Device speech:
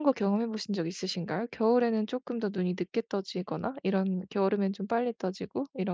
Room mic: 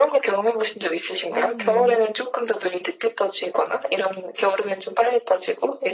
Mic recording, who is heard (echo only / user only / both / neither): both